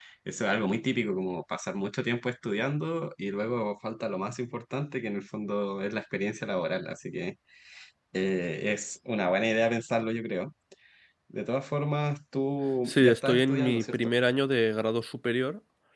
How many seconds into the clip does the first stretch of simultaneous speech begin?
12.9 s

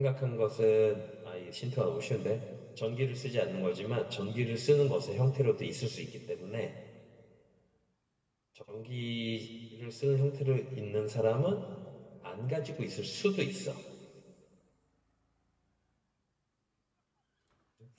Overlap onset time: none

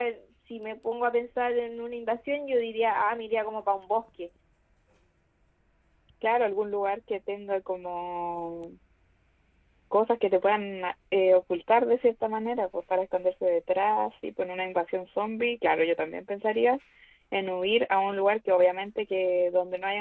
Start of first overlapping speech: none

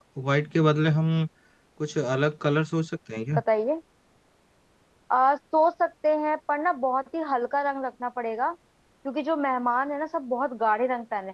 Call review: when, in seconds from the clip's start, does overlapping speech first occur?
none

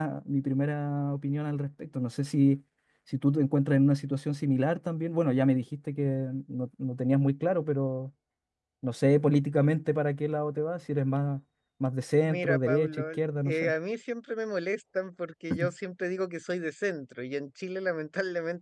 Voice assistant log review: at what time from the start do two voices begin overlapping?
12.2 s

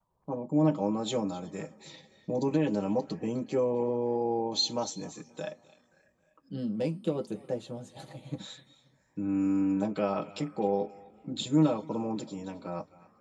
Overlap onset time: none

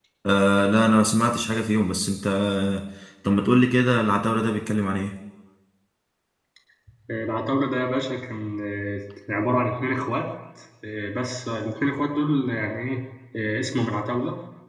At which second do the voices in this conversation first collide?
none

